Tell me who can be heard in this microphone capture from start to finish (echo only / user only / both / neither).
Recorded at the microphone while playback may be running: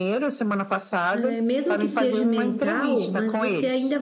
both